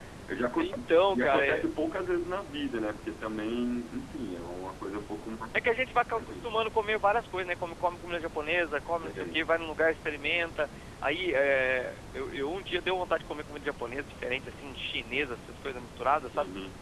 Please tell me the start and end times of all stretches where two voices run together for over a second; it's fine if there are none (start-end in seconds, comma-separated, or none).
none